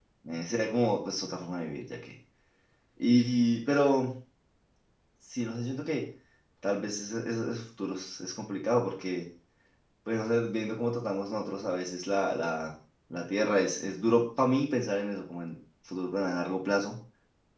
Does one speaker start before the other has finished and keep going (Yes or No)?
No